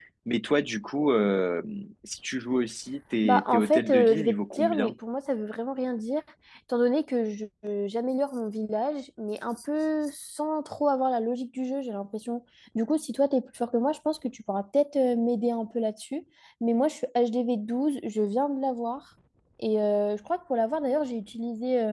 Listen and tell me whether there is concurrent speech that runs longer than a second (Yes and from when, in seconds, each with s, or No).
Yes, from 3.2 s